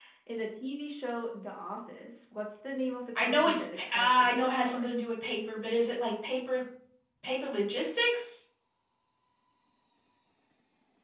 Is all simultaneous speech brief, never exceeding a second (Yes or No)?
No